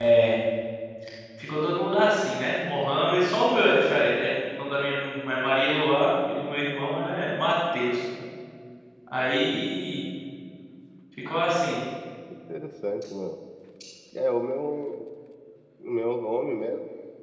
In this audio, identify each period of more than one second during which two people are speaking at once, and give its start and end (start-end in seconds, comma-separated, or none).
none